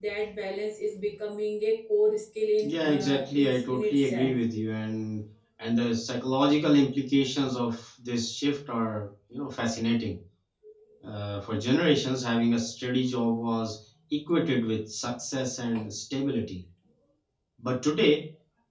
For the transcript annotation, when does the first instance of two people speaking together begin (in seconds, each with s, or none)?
2.6 s